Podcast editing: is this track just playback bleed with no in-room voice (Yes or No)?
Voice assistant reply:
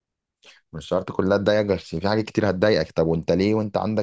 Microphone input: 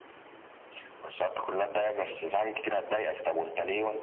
Yes